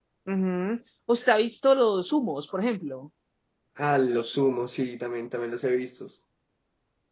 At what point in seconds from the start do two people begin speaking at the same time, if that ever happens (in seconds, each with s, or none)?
none